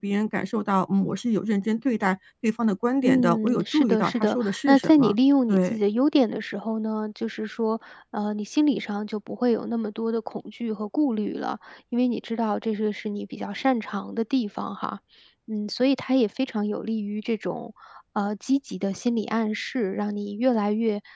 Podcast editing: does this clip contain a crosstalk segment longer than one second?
Yes, from 3.0 s

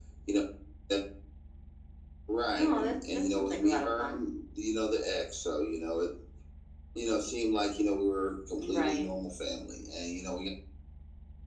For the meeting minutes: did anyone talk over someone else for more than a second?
Yes, from 2.6 s

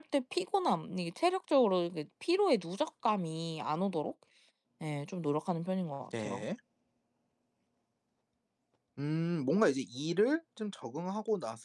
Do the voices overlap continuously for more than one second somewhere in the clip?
No

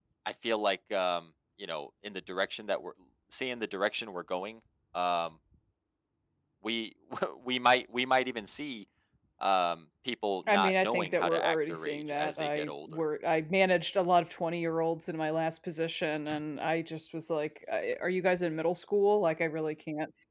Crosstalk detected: Yes, from 10.5 s

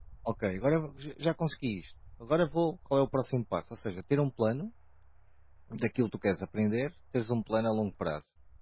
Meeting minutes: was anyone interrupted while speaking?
No

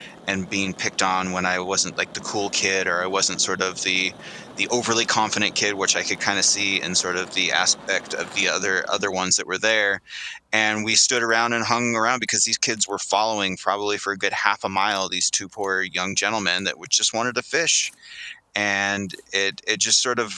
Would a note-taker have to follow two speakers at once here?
No

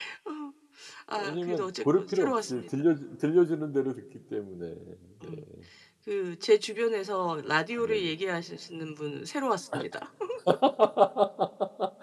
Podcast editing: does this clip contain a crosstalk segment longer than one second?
Yes, from 1.1 s

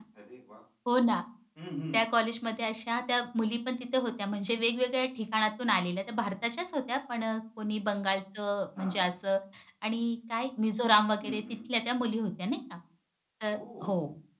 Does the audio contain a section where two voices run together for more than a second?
No

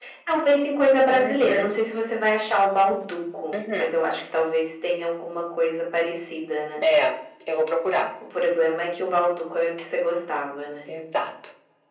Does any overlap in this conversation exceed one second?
No

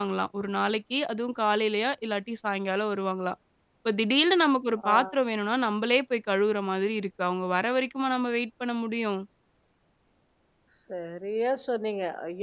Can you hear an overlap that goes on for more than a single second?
No

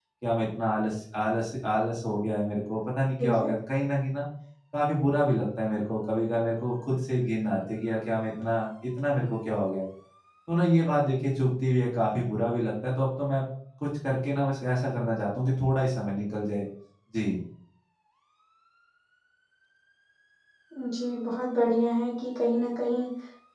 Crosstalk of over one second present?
No

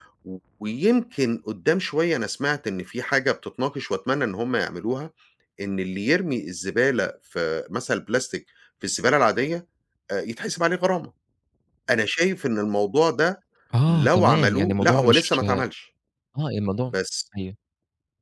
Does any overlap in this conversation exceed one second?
Yes, from 13.9 s

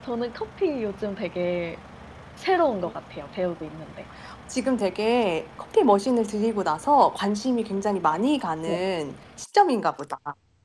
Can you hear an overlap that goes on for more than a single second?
No

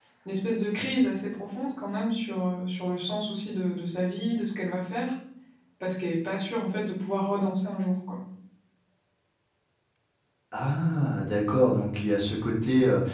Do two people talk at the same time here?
No

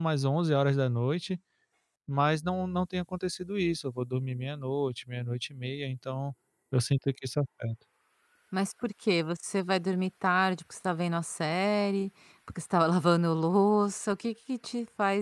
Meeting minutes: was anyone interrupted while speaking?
No

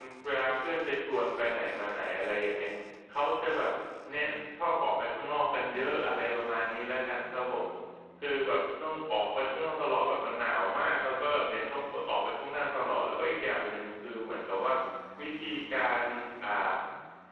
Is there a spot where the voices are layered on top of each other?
No

